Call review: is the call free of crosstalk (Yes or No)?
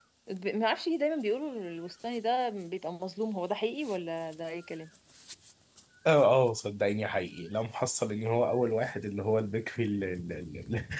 Yes